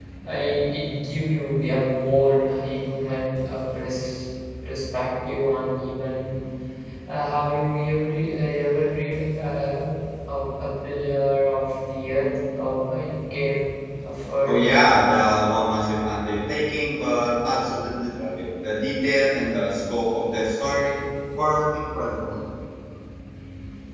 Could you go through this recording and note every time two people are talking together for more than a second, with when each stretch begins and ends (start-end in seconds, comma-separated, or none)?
none